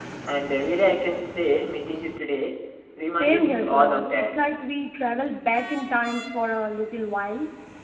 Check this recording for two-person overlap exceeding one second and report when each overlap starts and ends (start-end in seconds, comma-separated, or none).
3.1-4.4